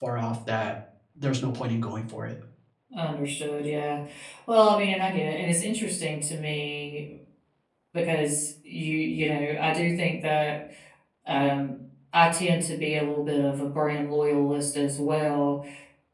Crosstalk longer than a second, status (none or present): none